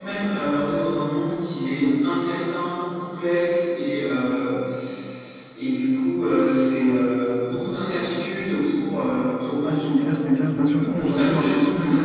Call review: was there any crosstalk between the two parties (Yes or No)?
Yes